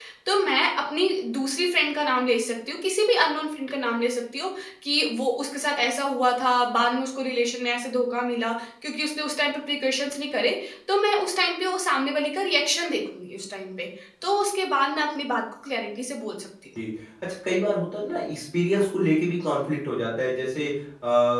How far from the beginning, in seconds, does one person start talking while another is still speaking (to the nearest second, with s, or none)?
none